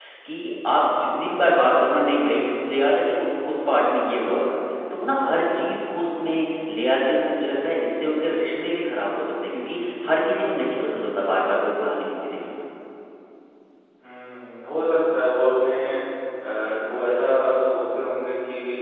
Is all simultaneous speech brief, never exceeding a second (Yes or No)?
Yes